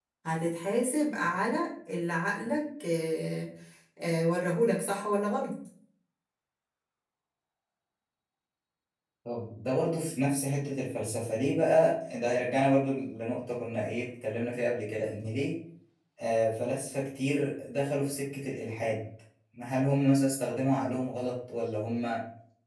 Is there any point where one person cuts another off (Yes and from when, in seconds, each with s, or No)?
No